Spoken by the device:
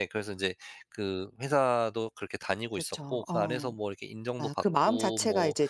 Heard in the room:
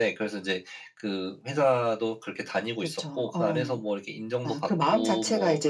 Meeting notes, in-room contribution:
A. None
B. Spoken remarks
A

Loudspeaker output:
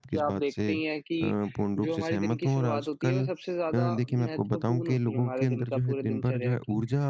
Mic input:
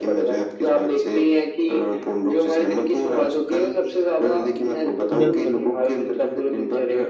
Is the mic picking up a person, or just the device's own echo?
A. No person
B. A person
B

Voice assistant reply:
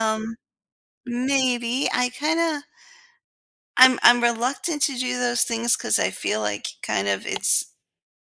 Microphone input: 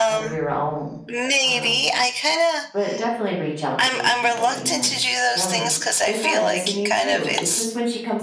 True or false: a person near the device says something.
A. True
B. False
A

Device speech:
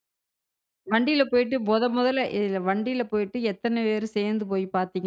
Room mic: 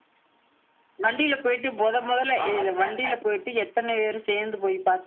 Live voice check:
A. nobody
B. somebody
B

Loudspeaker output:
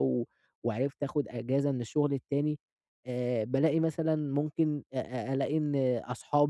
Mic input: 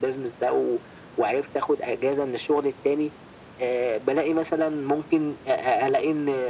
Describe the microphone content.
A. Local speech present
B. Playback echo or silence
B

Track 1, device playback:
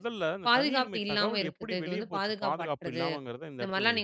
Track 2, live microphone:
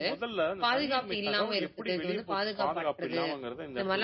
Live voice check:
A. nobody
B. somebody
A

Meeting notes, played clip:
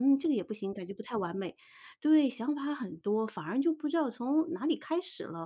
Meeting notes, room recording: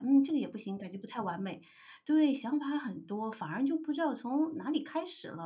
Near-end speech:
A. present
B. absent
B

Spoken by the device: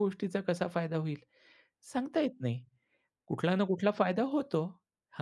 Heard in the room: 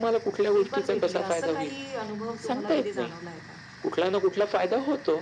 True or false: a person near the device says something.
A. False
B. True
B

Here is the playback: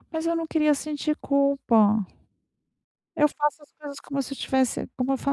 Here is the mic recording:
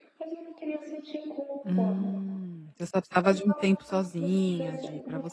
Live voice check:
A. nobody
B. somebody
B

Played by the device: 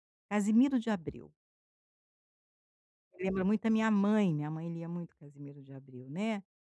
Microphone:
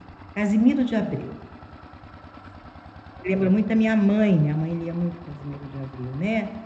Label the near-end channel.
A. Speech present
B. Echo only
B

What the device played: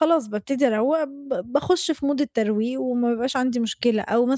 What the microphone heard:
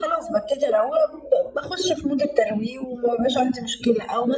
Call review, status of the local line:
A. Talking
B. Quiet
B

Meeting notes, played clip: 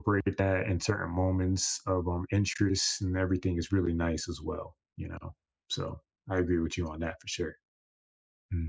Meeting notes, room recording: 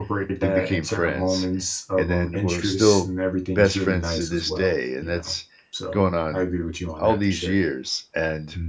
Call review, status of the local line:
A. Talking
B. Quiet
A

